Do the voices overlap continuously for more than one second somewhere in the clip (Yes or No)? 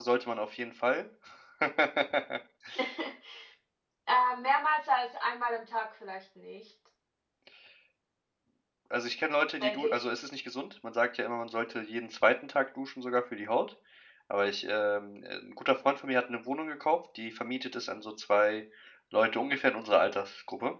No